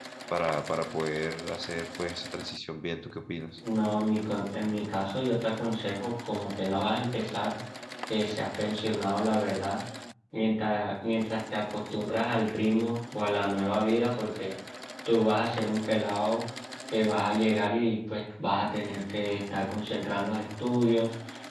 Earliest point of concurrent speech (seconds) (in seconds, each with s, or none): none